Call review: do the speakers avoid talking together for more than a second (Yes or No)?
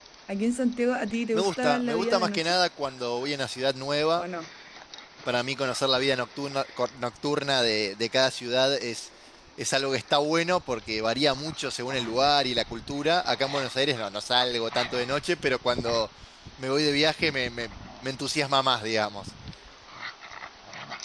No